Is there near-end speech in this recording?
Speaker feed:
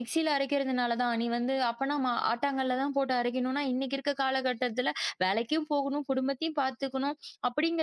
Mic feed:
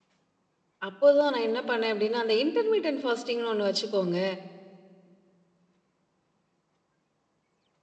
Yes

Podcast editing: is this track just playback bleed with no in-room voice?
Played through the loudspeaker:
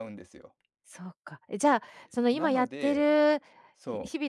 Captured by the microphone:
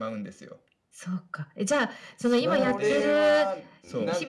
No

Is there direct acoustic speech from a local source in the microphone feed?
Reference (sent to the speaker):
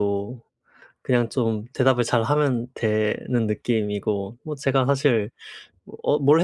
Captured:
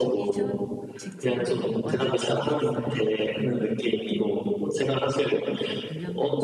Yes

